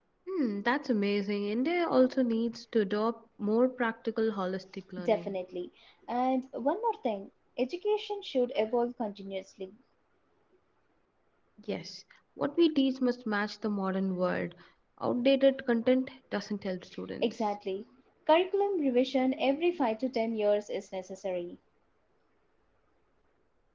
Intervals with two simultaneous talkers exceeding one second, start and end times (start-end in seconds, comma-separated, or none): none